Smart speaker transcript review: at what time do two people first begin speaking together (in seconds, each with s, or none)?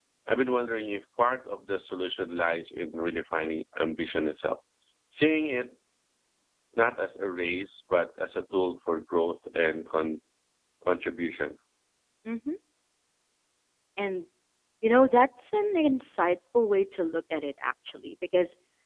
none